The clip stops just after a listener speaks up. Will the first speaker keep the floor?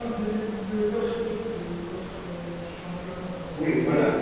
No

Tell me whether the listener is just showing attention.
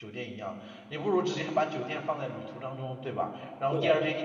Yes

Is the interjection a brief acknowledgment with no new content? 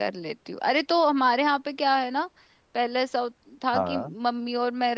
Yes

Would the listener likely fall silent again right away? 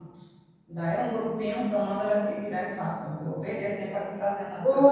No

